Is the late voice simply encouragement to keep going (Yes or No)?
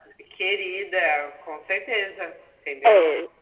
No